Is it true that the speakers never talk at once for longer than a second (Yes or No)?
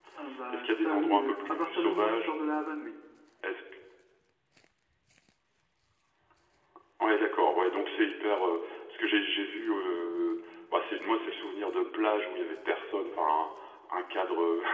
No